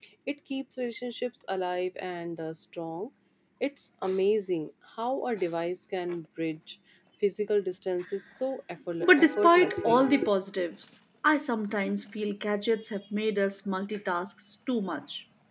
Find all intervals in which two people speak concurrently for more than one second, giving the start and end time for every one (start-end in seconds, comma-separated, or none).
9.0-10.3